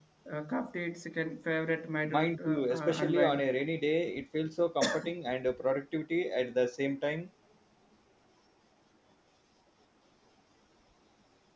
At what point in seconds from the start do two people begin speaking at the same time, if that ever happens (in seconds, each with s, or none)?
2.1 s